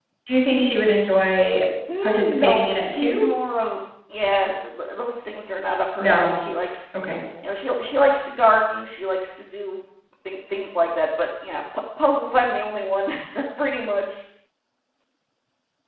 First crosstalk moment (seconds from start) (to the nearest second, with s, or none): 2 s